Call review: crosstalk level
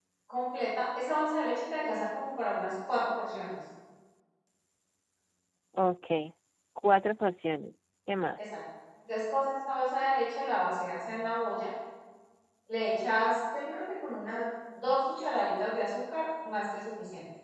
none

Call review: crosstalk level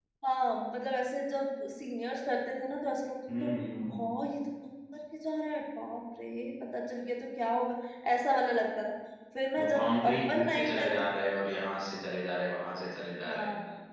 present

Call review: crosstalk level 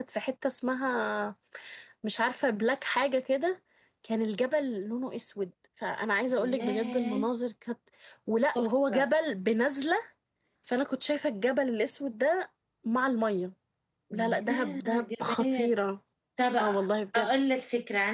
present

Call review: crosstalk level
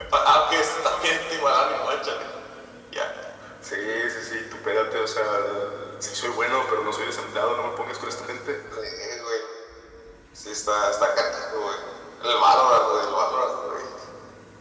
none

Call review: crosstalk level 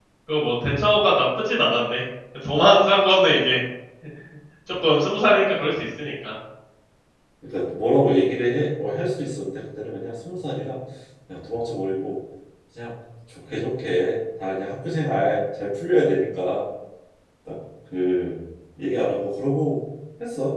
none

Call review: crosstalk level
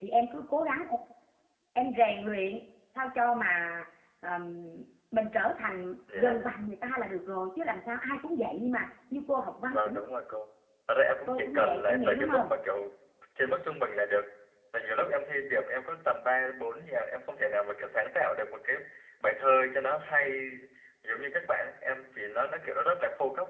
present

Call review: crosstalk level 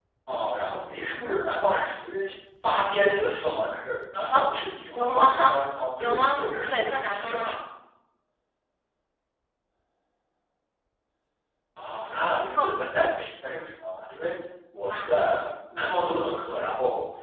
present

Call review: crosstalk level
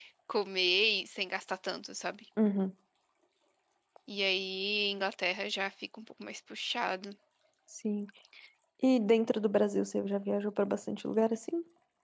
none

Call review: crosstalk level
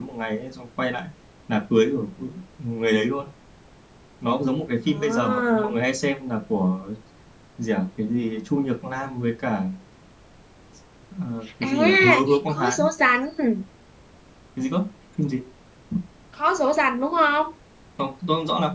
present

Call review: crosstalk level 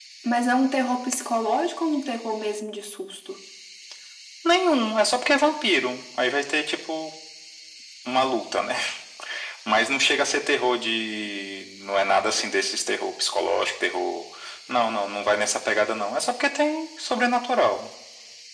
none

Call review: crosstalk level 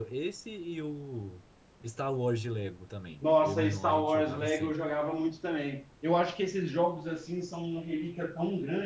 present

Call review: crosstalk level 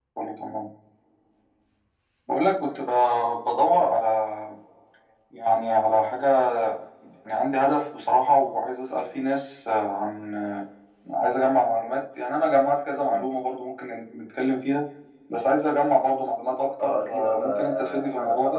present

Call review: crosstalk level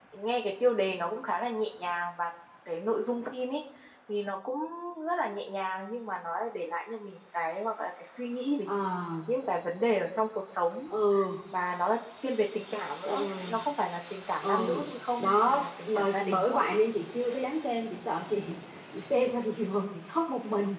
present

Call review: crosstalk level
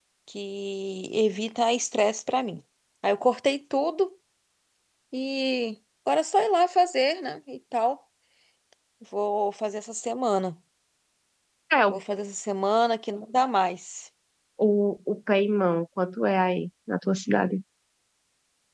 none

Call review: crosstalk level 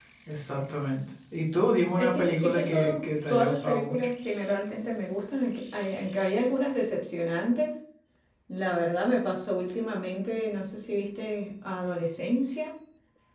present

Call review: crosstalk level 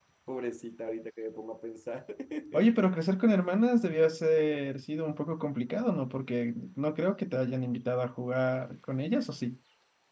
none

